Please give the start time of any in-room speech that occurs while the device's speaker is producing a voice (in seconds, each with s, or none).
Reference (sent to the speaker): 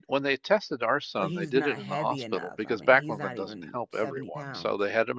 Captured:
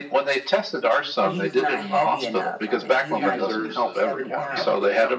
3.1 s